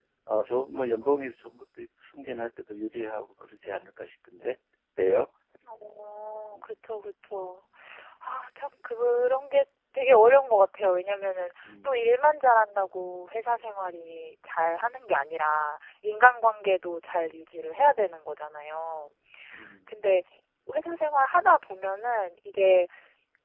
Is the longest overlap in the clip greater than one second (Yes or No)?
No